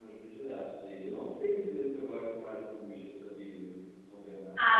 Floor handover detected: Yes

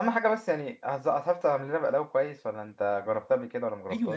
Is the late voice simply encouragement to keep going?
No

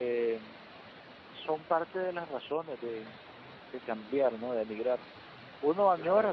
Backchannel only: Yes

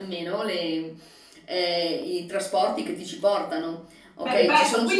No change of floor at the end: No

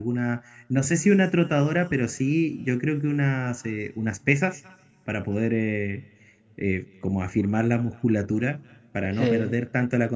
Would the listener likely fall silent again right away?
Yes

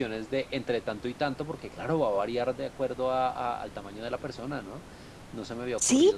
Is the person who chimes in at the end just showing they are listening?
No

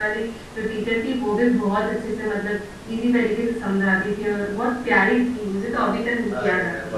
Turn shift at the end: Yes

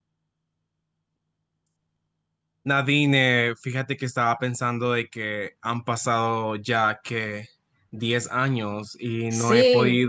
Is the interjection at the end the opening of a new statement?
No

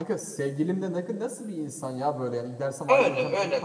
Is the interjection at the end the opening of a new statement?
Yes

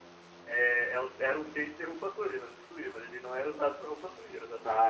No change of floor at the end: No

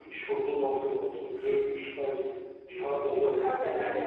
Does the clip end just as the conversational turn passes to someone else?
Yes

